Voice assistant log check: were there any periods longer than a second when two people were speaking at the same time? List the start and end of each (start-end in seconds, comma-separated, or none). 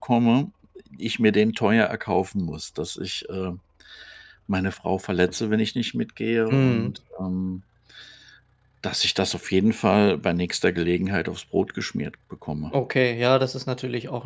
none